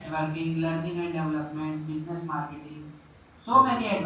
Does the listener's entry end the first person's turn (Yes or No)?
No